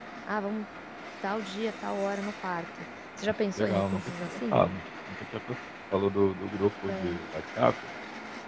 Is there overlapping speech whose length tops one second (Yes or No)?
Yes